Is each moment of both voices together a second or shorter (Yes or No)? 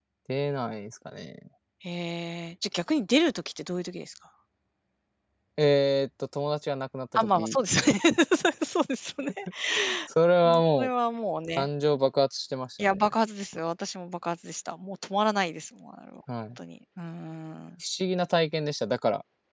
Yes